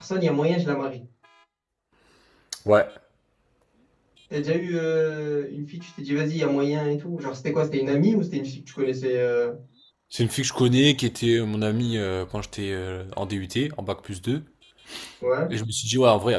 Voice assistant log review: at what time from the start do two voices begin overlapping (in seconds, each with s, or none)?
none